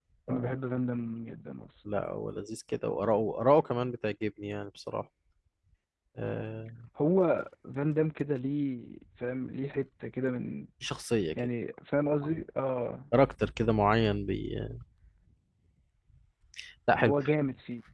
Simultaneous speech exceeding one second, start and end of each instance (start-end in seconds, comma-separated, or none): none